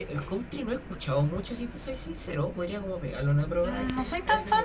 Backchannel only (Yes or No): No